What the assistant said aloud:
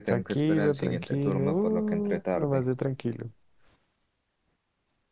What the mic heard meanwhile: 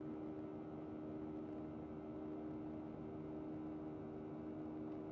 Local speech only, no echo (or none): none